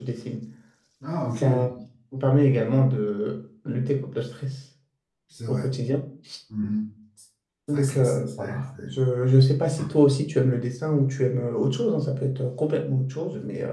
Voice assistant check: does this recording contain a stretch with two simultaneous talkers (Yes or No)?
Yes